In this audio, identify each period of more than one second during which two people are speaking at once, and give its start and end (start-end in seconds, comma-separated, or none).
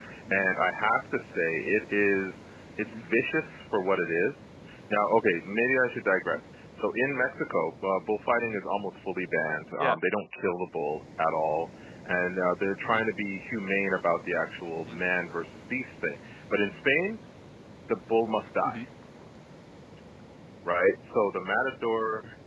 none